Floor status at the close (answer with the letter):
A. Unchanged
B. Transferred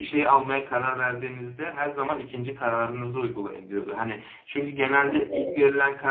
A